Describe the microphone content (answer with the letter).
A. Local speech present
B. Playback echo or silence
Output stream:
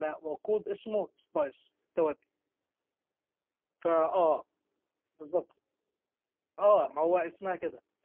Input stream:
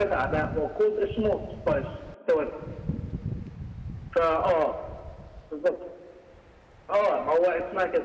B